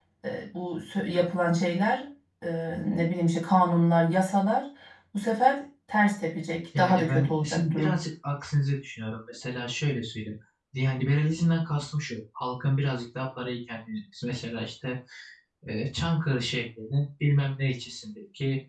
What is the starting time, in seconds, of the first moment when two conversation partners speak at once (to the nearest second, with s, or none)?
7 s